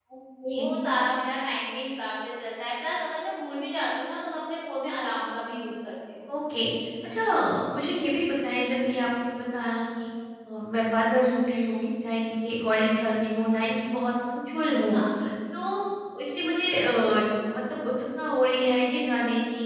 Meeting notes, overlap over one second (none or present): none